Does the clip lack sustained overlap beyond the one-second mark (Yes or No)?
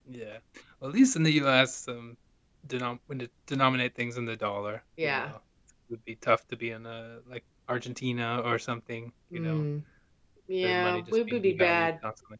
No